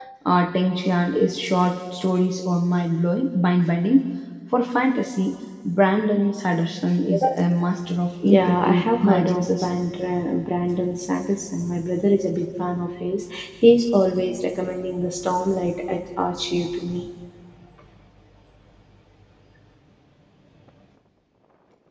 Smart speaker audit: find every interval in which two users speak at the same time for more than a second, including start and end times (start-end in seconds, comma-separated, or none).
8.2-9.7